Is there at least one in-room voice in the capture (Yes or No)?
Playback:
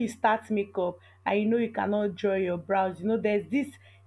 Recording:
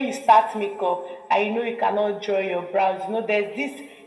No